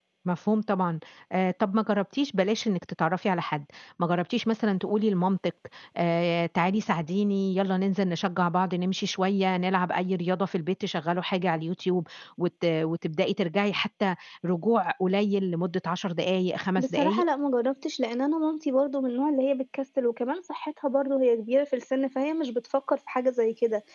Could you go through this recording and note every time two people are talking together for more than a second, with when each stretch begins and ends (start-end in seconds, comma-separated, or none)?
none